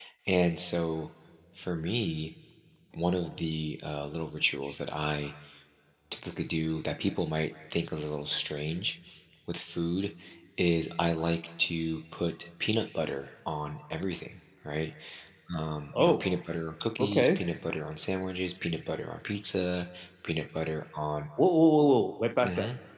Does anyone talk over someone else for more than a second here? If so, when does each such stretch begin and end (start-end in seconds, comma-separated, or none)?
none